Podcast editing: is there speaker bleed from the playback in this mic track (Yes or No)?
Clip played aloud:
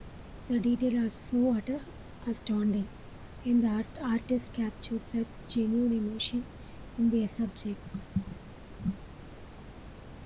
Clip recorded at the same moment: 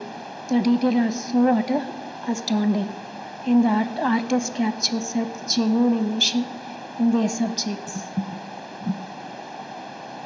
Yes